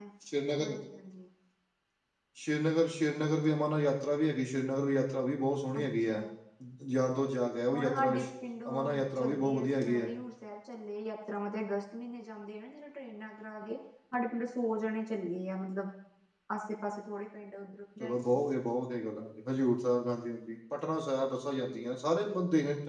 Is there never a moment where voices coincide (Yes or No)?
No